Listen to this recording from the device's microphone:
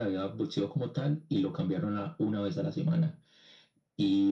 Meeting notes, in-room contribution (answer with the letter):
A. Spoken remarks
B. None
B